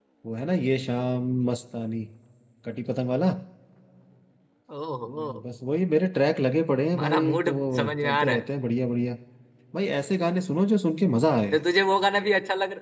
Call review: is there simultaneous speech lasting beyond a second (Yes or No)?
Yes